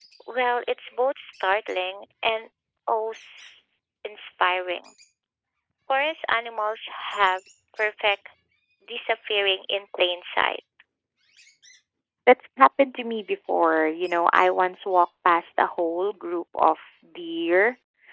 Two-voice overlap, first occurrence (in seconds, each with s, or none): none